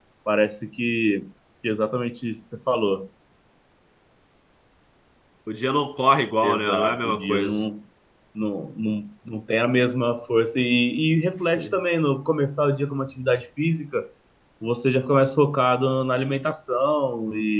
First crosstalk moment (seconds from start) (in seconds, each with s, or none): 6.4 s